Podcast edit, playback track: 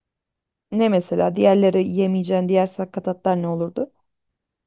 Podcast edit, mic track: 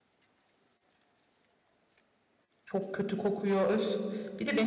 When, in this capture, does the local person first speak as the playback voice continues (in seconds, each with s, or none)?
2.6 s